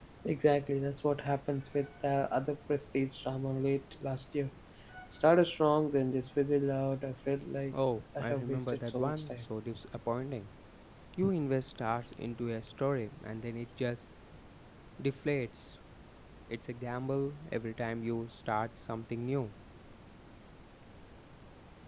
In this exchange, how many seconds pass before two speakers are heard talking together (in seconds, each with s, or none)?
8.2 s